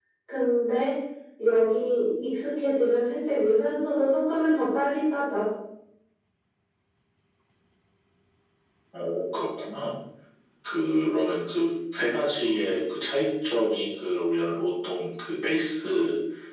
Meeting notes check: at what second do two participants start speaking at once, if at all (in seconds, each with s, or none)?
none